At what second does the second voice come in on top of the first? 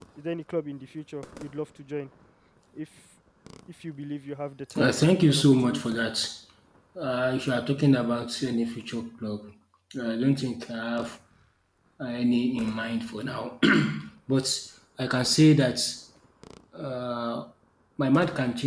4.7 s

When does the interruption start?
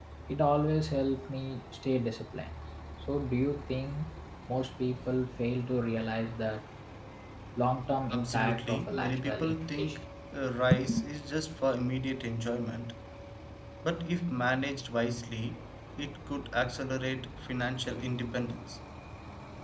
8.1 s

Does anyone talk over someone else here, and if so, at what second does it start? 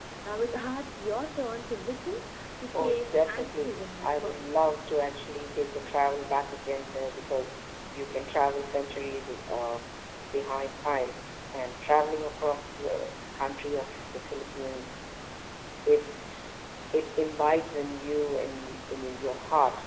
2.7 s

